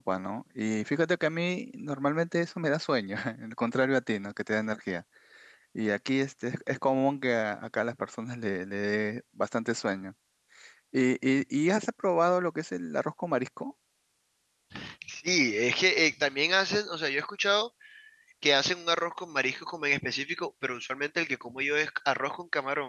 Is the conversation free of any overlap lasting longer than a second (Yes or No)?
Yes